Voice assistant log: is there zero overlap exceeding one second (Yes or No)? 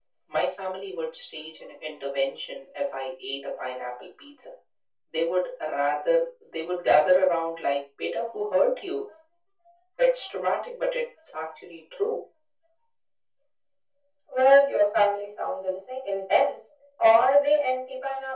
Yes